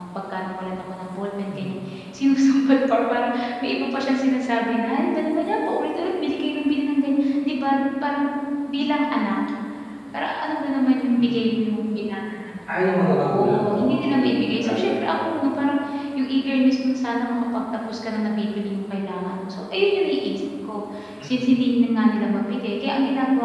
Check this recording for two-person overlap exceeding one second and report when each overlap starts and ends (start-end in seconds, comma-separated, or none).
13.1-15.4